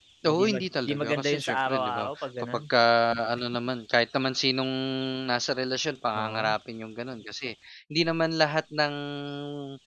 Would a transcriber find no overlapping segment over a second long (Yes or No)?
No